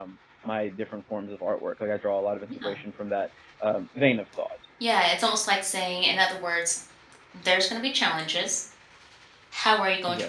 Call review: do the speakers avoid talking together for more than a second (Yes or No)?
Yes